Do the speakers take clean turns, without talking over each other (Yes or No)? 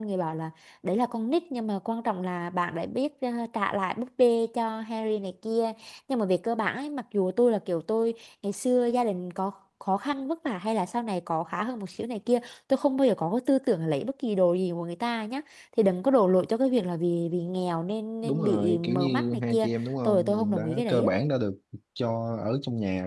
No